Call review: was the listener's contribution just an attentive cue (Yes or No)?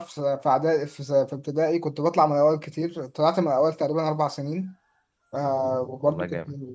Yes